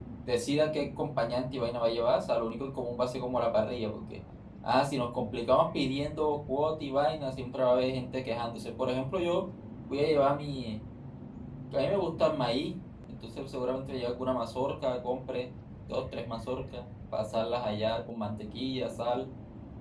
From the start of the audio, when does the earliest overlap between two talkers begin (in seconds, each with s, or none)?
none